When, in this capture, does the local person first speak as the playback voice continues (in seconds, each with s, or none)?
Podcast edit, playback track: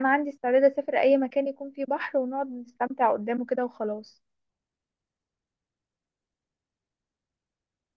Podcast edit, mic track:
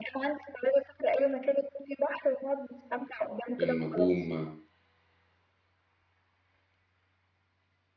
3.6 s